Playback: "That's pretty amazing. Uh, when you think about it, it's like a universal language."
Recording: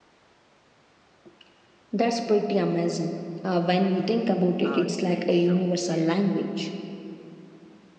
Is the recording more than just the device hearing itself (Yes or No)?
Yes